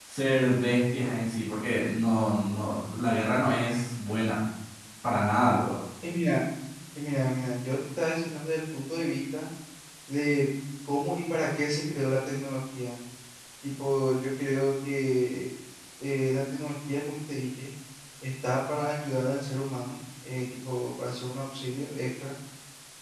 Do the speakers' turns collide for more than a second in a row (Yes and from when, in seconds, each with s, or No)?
No